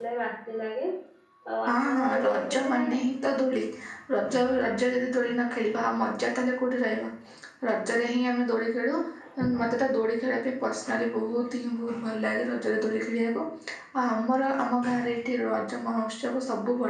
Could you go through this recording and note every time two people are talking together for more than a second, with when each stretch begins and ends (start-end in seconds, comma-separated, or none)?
1.7-3.0